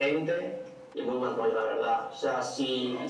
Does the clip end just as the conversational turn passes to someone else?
No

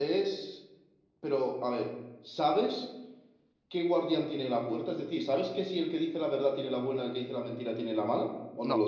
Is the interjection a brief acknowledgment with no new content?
No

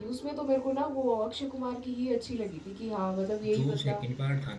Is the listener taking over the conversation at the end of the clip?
Yes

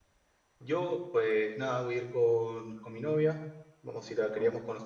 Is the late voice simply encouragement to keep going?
Yes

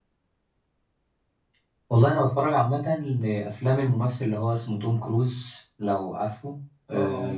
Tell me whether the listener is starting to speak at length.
No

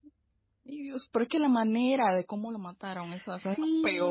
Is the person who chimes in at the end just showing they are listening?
No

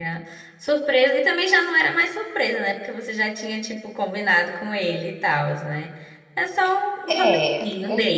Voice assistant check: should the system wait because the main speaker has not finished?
No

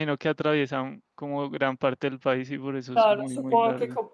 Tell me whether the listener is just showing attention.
No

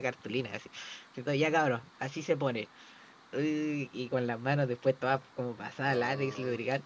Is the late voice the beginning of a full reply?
No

